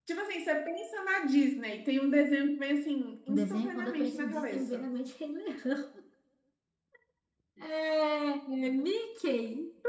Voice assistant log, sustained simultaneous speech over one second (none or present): present